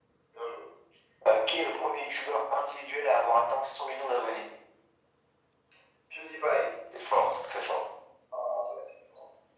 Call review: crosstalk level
none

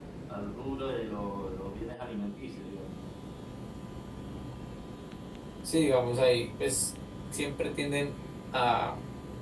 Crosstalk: none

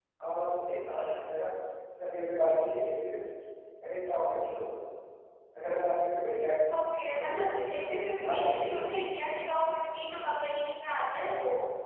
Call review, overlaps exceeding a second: present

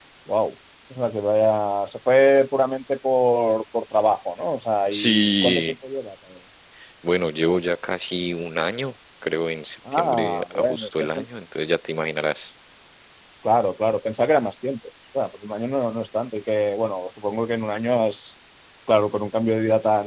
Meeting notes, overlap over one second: present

